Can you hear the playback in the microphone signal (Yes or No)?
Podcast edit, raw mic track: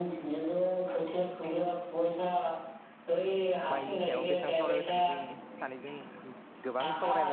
Yes